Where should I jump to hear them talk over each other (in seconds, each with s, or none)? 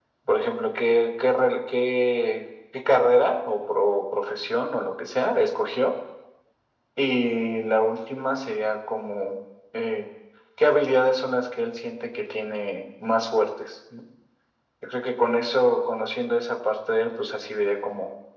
none